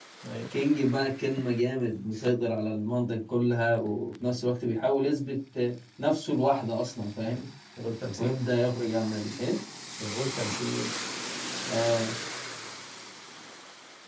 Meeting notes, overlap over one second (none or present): none